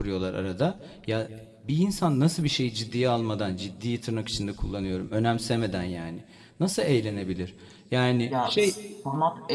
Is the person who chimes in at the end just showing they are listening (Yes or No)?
No